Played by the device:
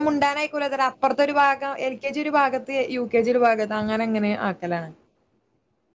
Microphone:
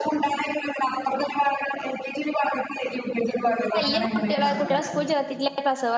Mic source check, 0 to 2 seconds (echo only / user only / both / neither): echo only